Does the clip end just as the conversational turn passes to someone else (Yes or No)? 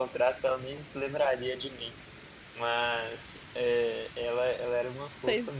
No